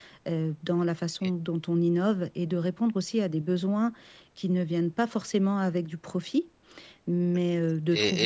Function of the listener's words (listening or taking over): taking over